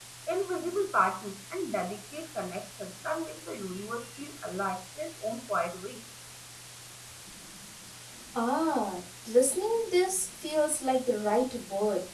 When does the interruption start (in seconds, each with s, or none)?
none